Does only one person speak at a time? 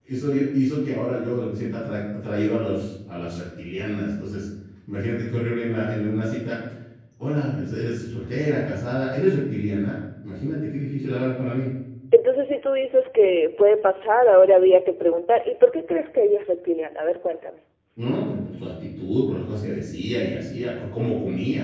Yes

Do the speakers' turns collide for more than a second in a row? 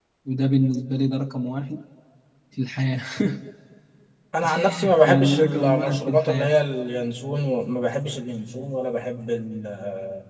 Yes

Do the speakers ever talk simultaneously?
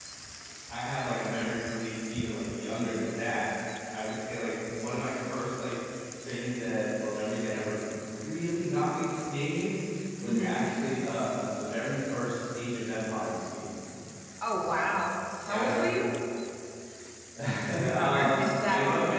Yes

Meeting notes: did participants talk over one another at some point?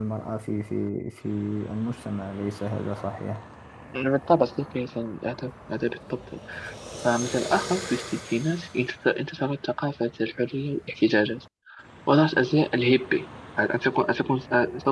No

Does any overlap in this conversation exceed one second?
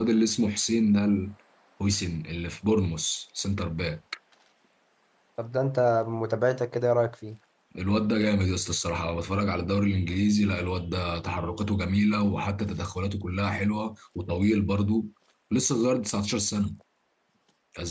No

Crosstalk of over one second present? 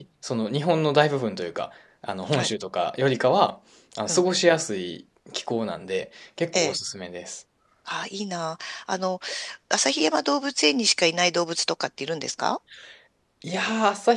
No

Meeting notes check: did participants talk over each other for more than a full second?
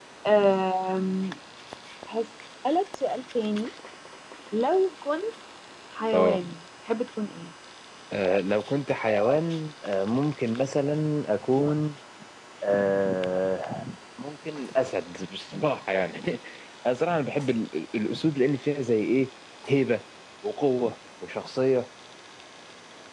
No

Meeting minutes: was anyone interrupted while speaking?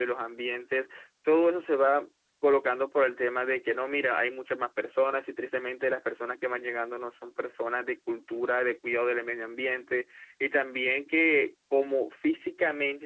No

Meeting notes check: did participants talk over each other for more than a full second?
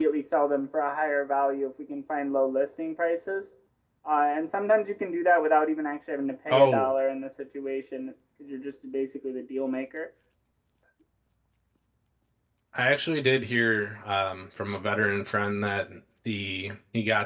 No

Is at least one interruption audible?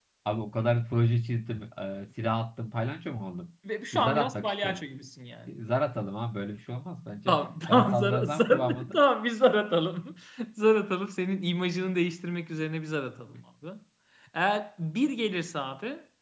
Yes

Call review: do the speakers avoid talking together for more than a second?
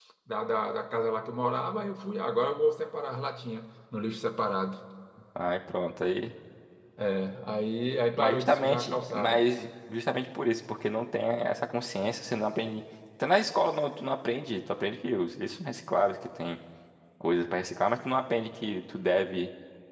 No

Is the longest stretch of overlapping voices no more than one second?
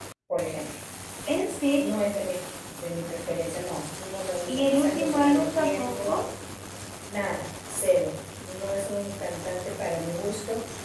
No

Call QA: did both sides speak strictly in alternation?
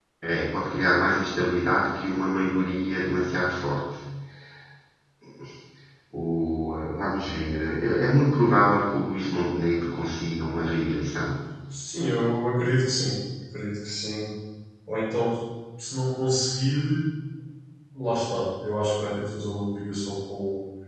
Yes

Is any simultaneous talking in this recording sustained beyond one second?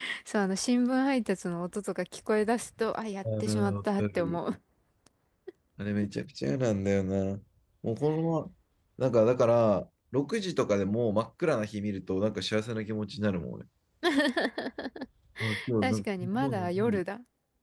Yes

